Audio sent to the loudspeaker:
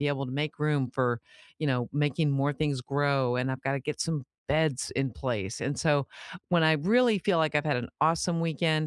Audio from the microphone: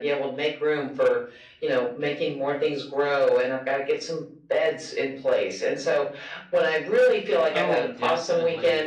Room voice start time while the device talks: 7.5 s

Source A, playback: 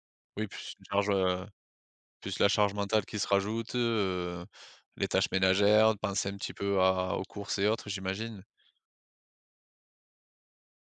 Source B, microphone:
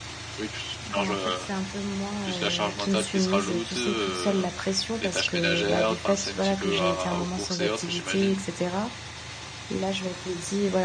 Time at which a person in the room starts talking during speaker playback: 0.8 s

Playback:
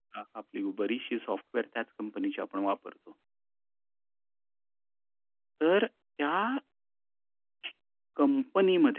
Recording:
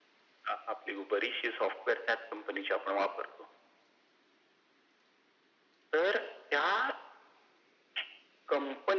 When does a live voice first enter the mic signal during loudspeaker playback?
none

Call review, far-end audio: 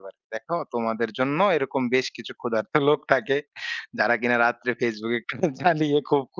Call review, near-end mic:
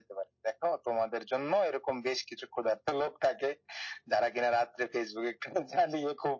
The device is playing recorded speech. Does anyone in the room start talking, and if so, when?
none

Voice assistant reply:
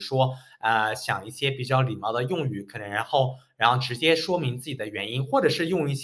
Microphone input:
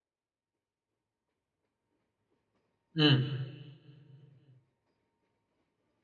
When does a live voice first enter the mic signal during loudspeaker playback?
2.9 s

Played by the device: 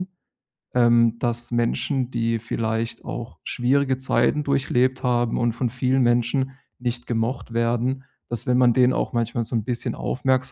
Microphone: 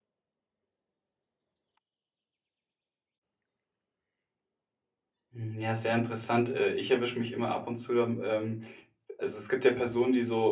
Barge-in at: 5.3 s

